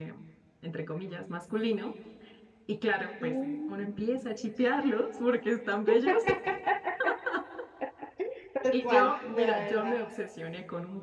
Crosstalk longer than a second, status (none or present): present